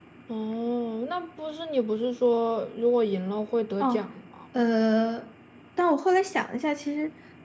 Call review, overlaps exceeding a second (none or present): none